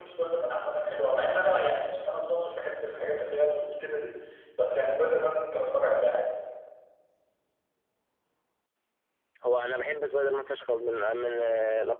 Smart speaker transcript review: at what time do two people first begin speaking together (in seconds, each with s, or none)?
none